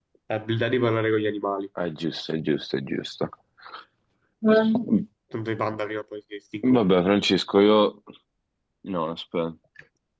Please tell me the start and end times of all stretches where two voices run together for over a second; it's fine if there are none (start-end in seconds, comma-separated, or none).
none